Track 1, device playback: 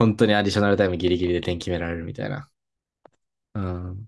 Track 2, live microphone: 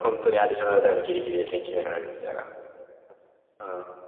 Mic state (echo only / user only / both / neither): echo only